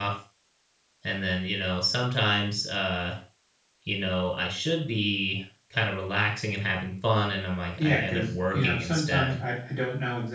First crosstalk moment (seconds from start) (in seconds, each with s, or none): 7.8 s